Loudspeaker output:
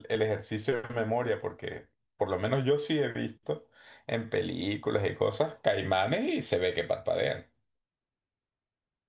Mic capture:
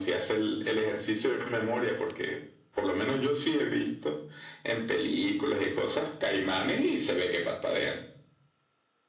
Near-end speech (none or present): none